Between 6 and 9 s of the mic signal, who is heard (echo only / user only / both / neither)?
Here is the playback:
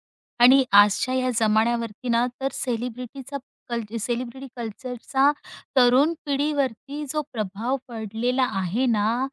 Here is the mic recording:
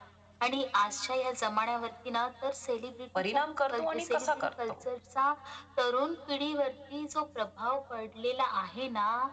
echo only